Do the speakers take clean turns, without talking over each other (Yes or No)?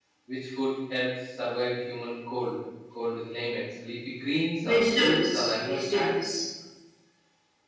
No